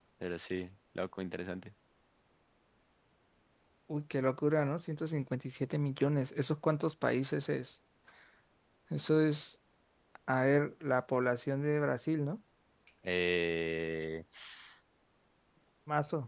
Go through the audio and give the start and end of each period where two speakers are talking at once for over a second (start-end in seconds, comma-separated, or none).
none